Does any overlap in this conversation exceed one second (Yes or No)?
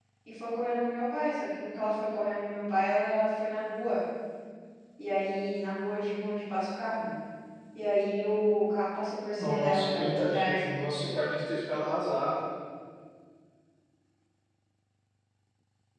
Yes